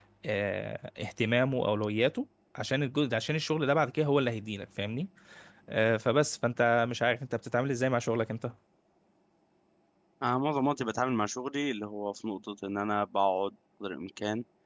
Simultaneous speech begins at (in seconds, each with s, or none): none